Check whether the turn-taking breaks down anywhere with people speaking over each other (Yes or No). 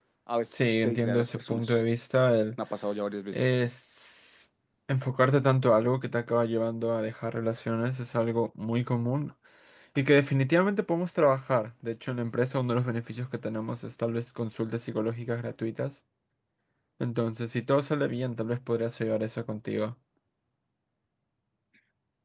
Yes